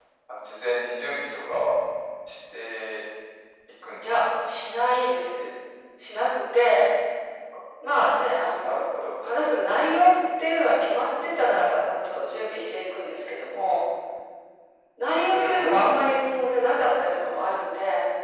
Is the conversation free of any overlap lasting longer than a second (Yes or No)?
Yes